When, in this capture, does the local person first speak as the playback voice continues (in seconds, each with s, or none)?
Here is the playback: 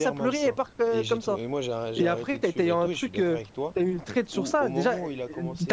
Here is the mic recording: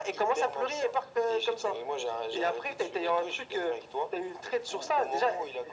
none